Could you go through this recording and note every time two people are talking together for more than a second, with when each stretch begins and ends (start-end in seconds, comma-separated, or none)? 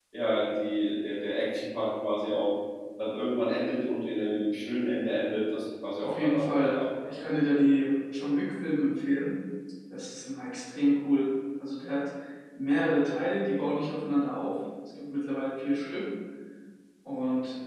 6.0-7.2